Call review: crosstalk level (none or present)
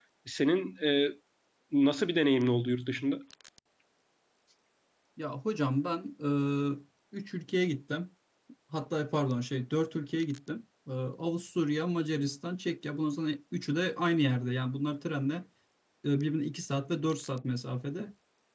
none